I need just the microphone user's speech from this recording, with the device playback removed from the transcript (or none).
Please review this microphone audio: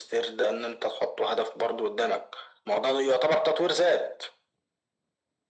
none